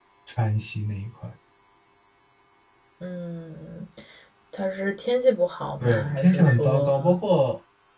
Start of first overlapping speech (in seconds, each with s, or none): 5.8 s